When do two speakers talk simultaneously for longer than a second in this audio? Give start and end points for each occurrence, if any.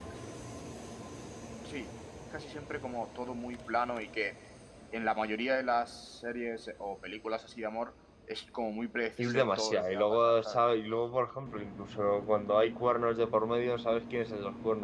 9.2-10.6

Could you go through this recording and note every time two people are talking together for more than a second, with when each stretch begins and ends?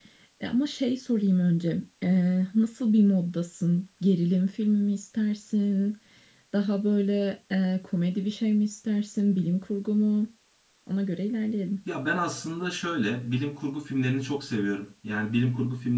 none

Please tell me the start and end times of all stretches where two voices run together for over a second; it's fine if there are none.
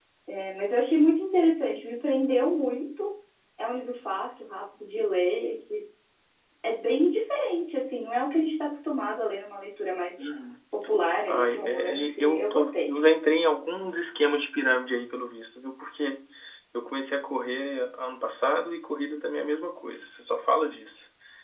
11.3-12.9

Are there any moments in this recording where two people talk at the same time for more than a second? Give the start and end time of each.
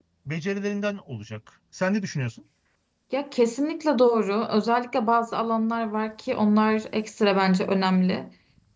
none

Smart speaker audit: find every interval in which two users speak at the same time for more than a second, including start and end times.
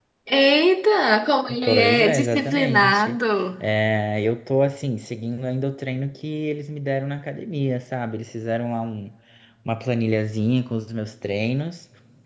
1.6-3.2

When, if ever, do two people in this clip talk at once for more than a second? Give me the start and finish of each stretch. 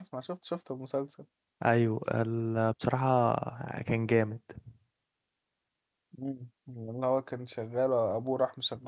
none

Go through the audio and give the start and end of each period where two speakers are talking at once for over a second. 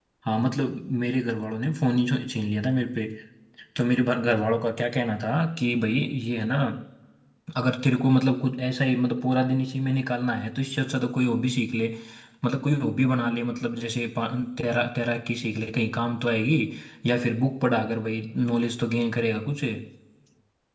none

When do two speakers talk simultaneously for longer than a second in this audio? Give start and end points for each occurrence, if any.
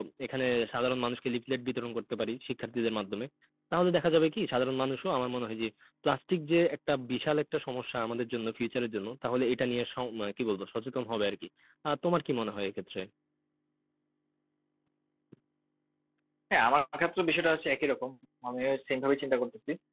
none

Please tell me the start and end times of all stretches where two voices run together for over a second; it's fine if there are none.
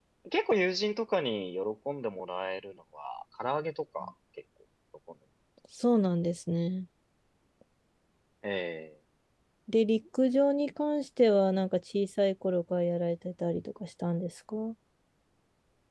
none

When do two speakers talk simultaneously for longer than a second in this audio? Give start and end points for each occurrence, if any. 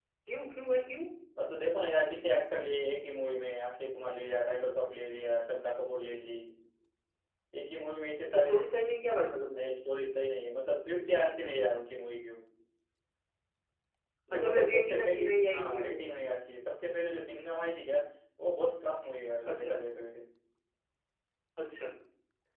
14.3-16.3

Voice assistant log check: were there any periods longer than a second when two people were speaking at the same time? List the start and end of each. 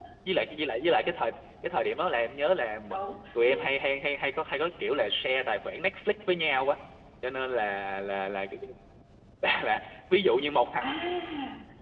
none

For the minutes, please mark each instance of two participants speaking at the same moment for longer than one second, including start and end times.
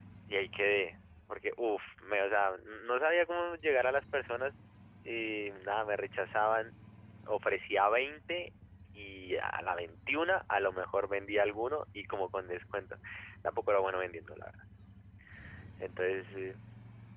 none

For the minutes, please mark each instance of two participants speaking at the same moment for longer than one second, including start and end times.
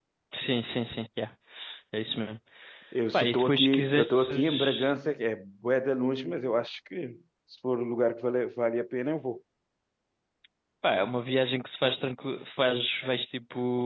3.1-4.9

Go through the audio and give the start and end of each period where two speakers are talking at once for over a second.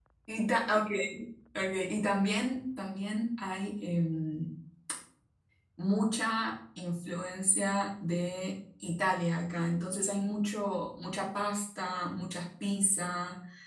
none

